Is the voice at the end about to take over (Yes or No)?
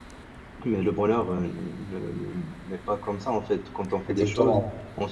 No